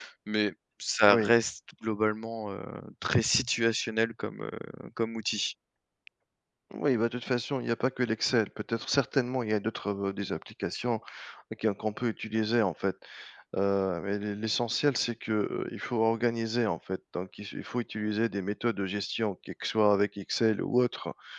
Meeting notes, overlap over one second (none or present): none